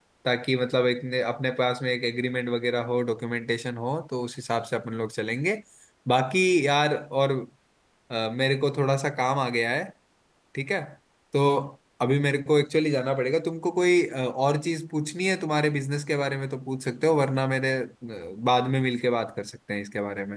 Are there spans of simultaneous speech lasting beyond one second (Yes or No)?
No